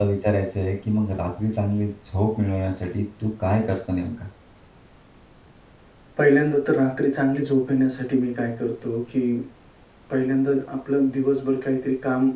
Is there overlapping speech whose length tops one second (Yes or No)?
No